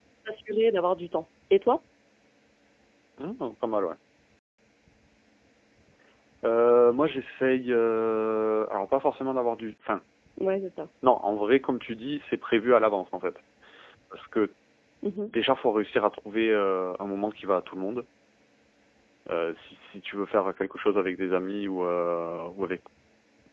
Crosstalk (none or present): none